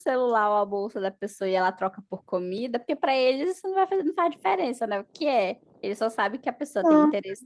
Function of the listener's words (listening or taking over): listening